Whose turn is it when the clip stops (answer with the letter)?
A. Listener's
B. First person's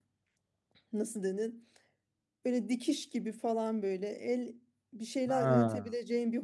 B